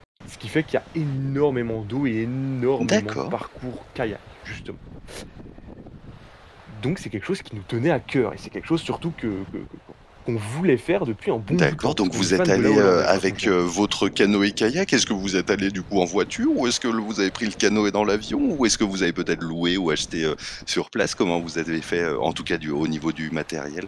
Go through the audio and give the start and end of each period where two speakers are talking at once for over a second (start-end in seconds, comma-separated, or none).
11.5-13.5